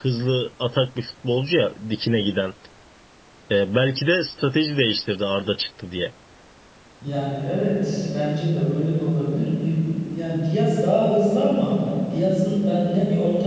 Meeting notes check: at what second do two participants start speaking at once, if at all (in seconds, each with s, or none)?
none